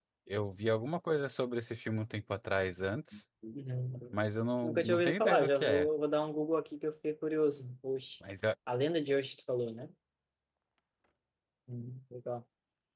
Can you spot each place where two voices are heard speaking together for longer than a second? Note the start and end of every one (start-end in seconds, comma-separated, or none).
4.6-5.9